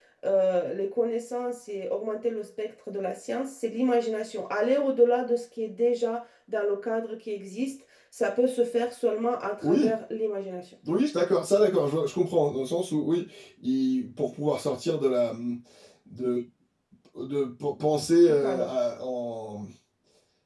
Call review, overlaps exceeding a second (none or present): none